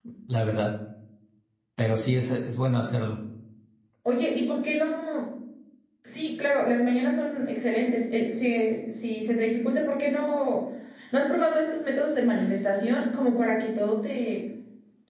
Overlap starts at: none

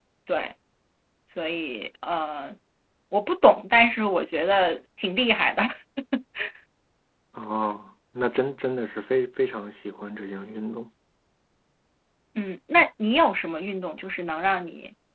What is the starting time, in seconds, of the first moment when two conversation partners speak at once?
none

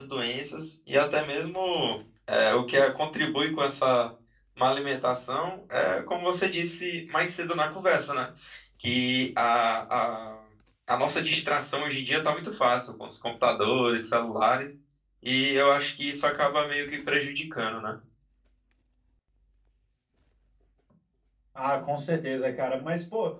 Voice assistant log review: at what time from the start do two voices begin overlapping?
none

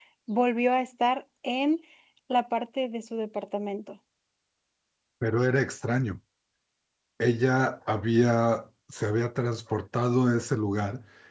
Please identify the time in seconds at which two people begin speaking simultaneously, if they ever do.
none

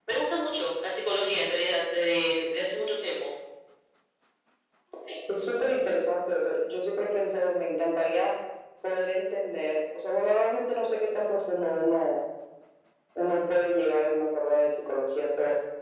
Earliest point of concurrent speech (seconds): none

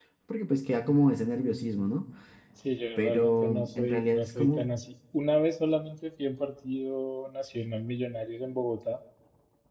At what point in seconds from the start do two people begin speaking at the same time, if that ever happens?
3.0 s

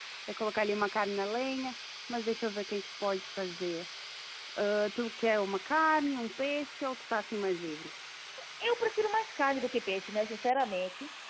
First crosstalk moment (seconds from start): none

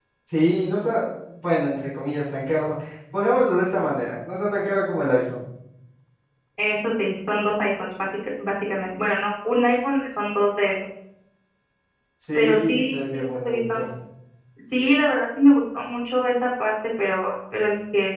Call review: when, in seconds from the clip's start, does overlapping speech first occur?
12.4 s

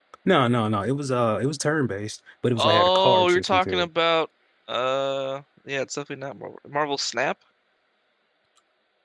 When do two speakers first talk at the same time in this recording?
2.6 s

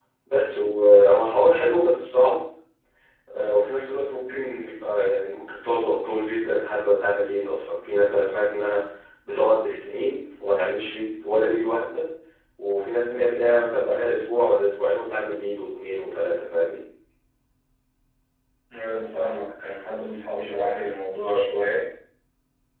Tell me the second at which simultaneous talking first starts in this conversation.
none

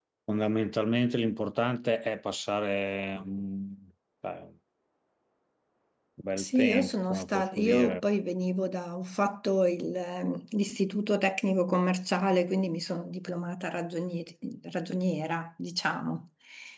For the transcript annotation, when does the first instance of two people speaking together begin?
6.4 s

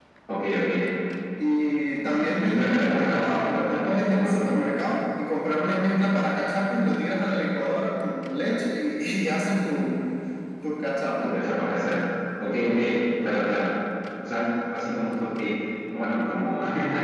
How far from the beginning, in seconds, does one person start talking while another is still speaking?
2.0 s

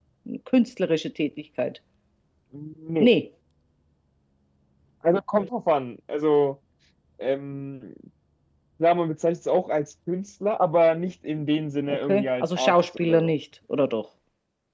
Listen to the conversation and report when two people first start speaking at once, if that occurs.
11.9 s

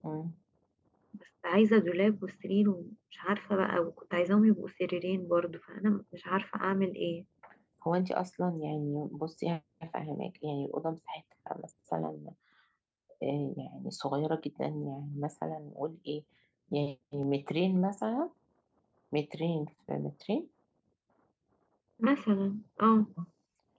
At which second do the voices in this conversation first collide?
none

